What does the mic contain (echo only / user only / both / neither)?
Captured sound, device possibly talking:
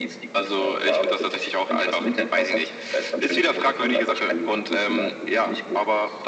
echo only